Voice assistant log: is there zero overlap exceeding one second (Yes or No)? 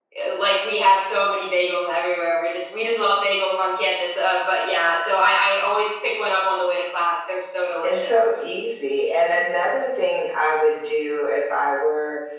Yes